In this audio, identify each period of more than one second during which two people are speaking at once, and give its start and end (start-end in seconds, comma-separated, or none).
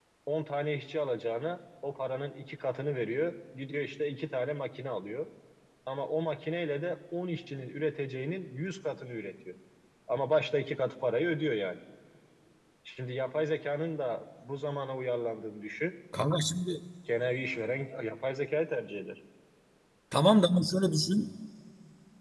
none